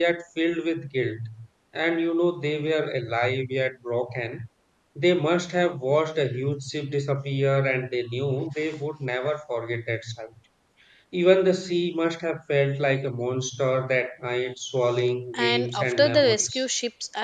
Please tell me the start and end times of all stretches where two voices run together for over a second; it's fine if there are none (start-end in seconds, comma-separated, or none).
15.4-16.6